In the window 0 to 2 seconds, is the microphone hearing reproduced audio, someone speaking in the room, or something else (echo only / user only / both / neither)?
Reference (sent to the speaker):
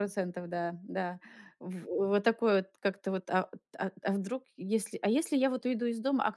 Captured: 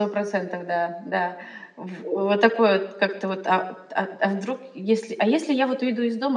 echo only